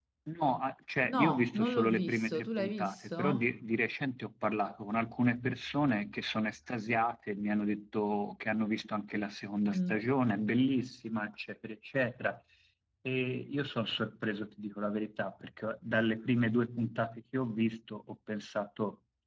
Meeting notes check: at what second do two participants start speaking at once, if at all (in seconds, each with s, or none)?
1.1 s